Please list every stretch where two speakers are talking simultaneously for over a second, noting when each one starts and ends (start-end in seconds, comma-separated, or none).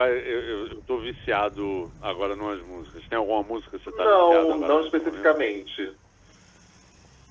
3.9-5.3